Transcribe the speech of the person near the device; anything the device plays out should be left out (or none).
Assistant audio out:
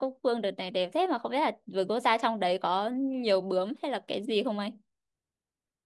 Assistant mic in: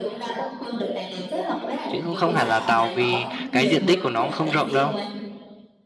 chứ cũng không hẳn là tàu vì cái diện tích của nó cũng không rộng đâu.